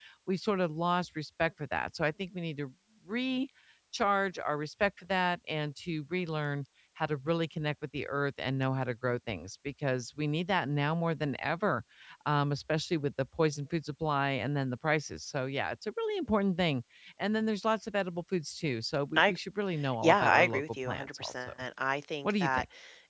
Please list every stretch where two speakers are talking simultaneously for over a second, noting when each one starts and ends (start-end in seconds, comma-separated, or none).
20.0-21.5